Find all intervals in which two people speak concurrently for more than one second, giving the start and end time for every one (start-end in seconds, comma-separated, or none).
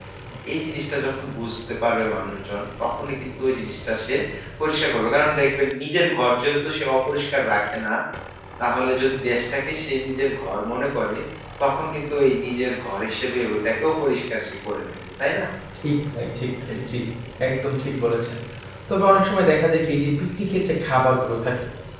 none